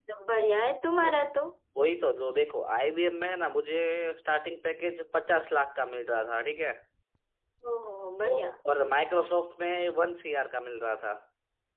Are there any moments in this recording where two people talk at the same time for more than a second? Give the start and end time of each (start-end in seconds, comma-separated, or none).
none